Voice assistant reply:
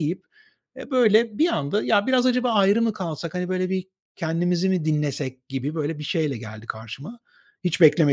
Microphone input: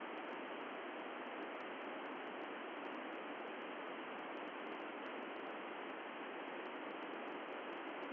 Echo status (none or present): none